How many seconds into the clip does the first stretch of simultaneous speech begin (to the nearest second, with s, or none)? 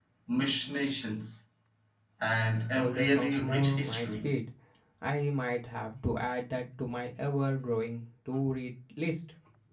3 s